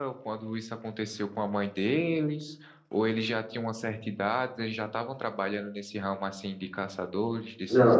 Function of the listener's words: taking over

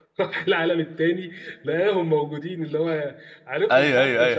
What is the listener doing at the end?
taking over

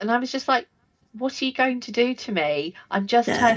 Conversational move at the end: listening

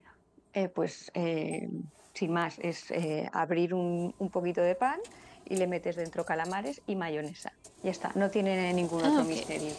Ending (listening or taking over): taking over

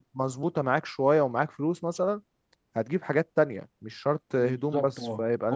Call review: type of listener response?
taking over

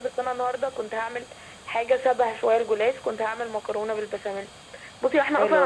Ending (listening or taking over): listening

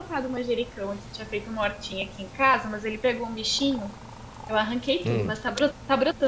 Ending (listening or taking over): listening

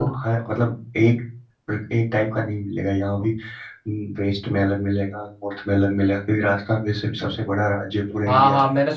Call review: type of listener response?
taking over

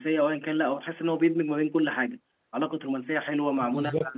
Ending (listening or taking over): listening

